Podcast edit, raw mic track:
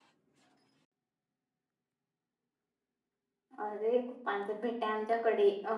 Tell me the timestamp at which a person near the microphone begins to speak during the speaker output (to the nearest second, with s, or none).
4 s